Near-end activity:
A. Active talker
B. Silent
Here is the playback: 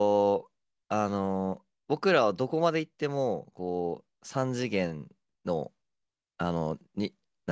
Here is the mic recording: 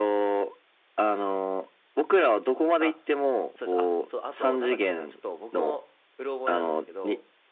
A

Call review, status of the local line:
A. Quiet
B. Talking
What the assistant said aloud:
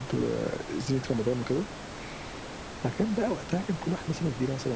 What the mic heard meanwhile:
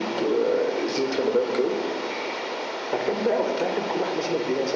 A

